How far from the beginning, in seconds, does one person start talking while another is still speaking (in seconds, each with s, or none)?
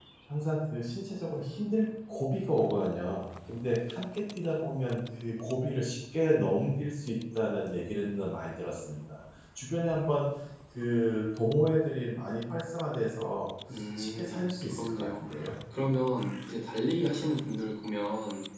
14.0 s